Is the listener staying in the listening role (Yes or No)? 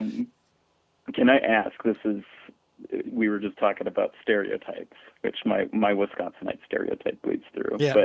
Yes